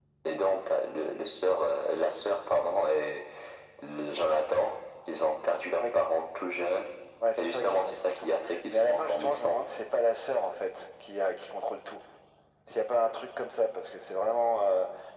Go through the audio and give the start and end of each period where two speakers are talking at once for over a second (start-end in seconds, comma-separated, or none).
7.4-9.6